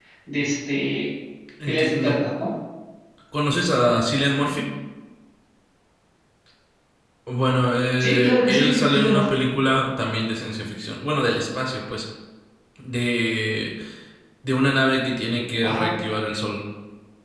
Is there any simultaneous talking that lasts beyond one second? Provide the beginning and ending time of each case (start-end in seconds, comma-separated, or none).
8.0-9.3